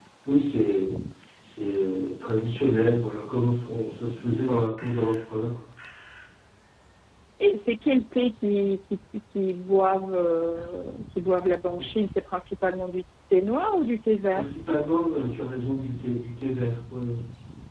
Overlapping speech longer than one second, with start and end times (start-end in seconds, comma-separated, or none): none